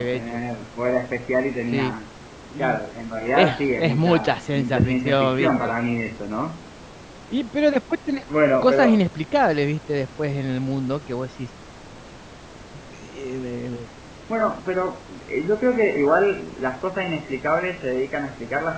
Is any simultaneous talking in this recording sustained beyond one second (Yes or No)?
Yes